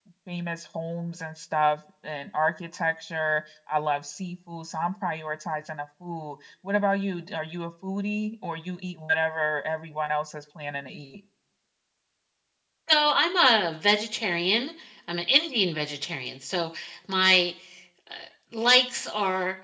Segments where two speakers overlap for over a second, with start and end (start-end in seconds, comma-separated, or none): none